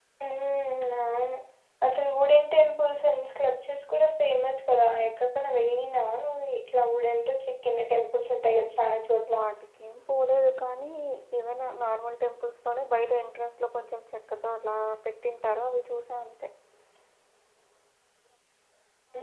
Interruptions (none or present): none